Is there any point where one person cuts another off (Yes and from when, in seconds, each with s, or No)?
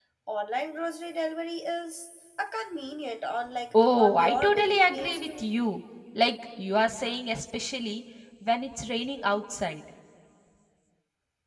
Yes, from 3.7 s